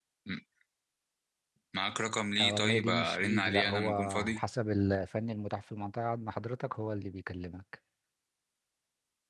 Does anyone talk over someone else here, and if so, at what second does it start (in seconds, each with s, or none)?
2.4 s